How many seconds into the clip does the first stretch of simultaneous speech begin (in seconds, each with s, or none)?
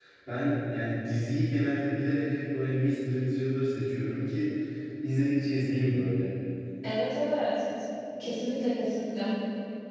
none